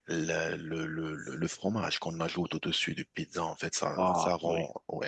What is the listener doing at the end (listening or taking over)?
listening